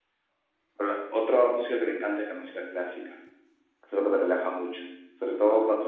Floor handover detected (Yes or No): No